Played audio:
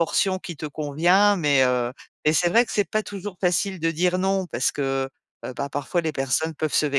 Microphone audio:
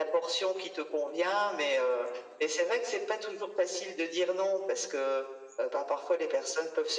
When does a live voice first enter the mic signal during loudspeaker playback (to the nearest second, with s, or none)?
none